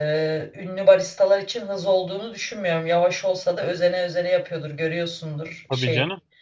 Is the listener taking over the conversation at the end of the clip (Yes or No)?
No